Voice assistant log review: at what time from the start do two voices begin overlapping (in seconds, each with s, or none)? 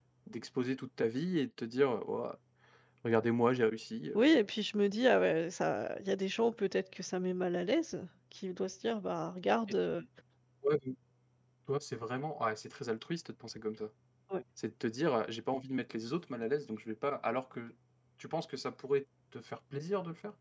none